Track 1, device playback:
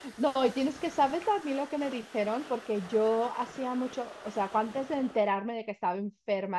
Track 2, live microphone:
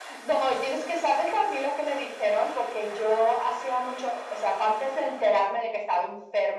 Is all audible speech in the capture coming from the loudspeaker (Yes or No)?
Yes